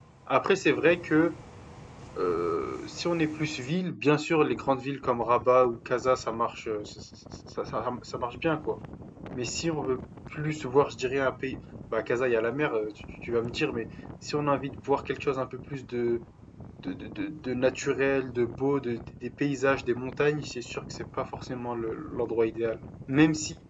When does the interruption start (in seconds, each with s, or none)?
none